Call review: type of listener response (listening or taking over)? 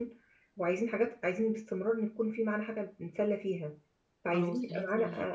listening